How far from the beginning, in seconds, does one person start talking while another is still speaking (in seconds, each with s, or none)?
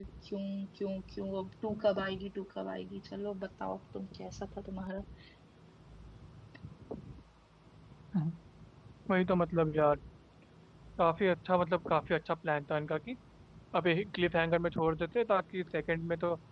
none